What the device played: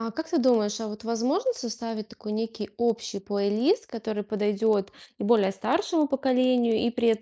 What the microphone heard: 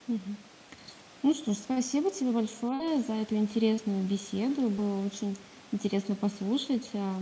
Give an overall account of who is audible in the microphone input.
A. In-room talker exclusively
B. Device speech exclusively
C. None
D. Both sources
A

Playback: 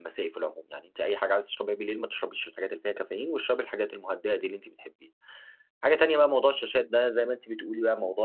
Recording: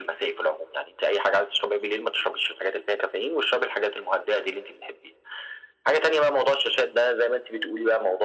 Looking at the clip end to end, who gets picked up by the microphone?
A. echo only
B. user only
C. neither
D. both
A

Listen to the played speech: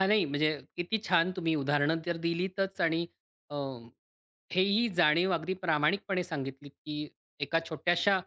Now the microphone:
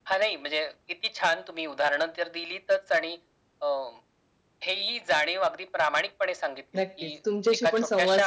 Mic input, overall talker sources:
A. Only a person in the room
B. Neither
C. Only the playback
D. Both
D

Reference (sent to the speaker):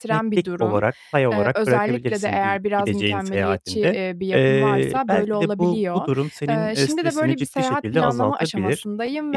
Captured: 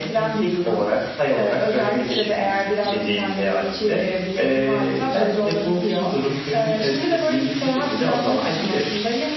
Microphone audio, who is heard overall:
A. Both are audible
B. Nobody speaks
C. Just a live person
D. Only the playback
D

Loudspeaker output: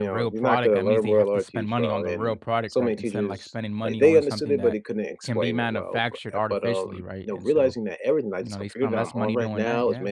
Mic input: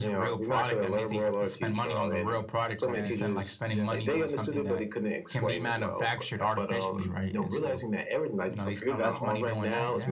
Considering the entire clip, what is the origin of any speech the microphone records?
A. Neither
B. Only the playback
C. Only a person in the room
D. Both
D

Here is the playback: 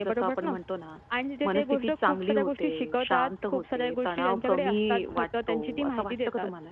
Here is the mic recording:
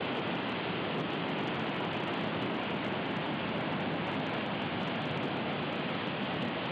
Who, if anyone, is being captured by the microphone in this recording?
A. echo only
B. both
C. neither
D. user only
C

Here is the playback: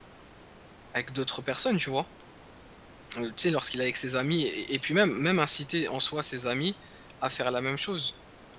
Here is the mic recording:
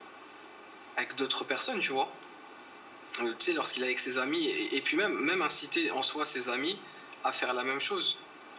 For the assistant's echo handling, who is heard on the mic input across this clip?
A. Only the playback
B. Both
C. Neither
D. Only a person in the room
A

